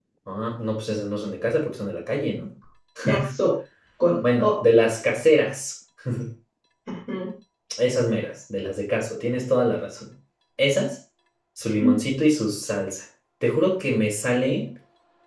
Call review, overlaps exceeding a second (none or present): none